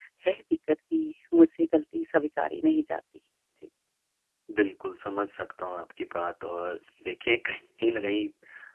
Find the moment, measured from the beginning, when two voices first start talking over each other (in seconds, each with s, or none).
none